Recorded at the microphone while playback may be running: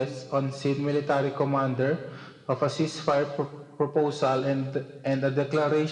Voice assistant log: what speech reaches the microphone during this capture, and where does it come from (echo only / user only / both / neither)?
echo only